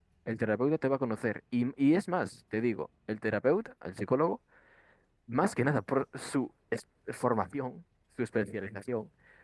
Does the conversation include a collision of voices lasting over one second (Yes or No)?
No